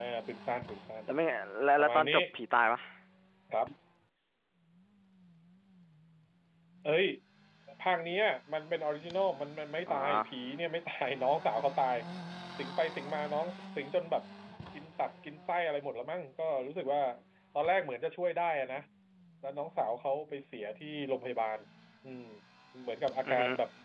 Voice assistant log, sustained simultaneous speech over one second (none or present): none